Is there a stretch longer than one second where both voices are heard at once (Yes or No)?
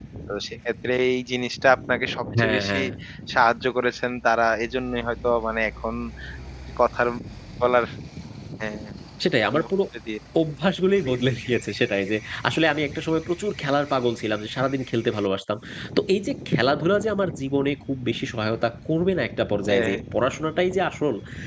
No